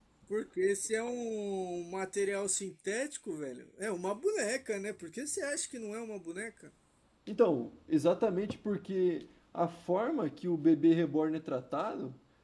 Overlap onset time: none

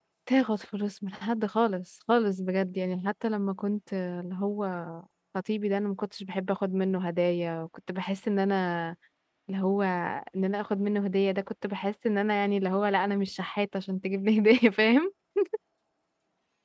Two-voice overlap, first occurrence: none

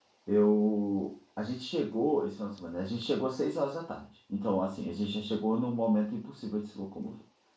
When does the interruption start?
none

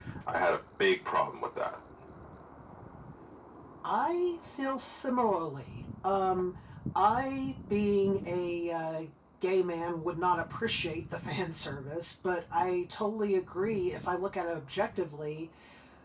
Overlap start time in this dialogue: none

